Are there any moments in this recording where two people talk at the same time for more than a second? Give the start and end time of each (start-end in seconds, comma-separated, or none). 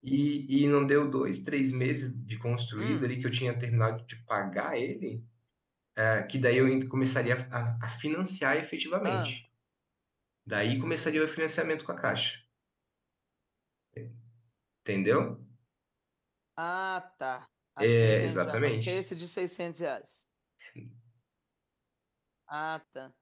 17.8-19.0